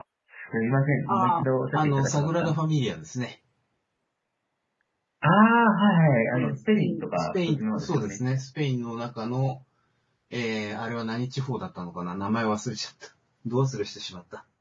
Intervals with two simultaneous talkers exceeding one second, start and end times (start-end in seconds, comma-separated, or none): 1.1-2.5, 6.3-8.2